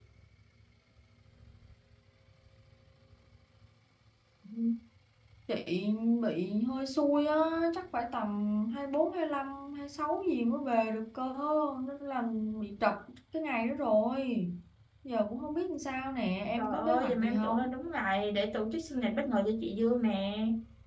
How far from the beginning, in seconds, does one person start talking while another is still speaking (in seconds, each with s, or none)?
16.6 s